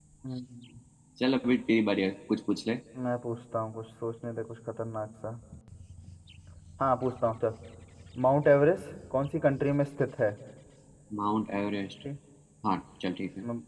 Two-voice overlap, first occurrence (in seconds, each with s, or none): none